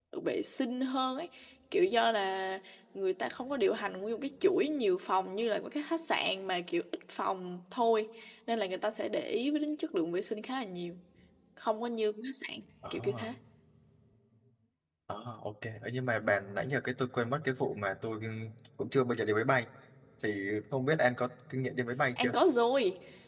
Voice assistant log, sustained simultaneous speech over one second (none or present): none